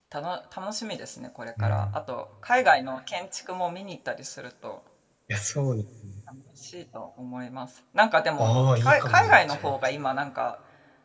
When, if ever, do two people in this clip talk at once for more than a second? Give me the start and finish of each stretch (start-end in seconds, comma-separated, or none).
8.4-9.7